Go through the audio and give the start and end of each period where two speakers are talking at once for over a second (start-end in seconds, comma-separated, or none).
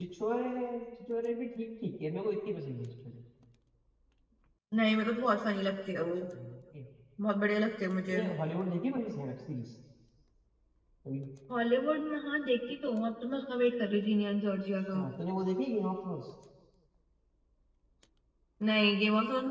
none